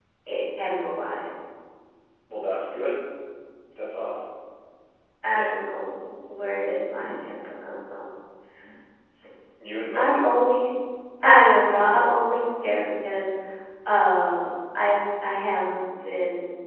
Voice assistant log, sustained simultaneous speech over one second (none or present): none